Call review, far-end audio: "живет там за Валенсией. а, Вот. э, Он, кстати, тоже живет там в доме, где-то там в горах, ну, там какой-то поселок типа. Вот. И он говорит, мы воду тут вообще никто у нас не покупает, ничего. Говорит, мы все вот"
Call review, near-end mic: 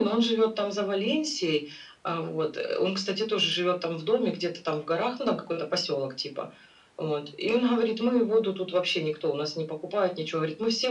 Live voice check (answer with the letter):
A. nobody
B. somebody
A